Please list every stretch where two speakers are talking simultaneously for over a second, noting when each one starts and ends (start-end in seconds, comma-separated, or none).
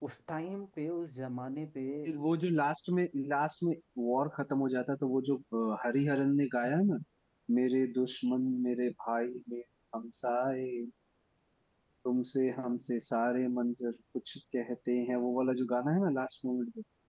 none